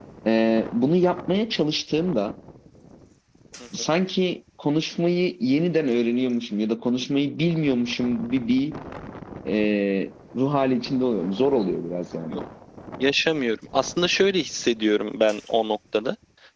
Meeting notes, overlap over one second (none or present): none